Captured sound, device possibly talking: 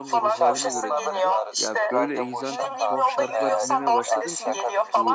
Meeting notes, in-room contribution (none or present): present